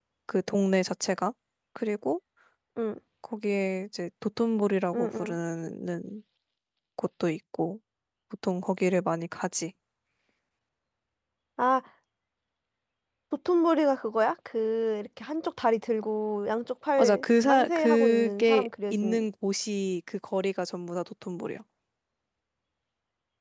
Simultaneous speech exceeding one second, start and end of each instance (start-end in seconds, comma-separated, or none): 17.0-19.2